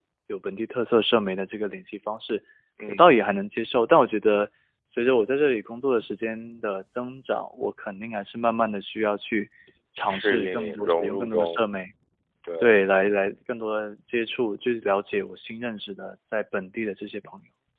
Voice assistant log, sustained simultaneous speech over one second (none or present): present